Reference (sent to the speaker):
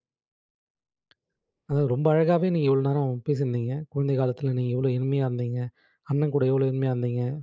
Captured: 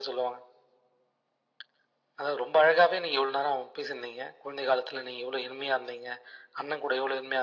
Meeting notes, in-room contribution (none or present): none